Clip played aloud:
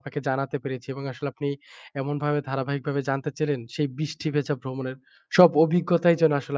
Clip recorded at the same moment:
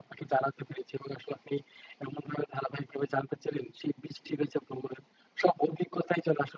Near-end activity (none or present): none